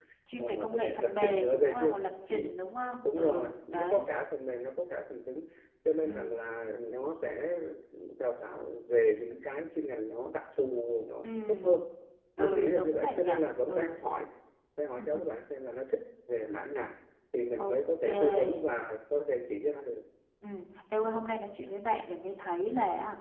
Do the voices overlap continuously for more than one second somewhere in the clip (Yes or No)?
Yes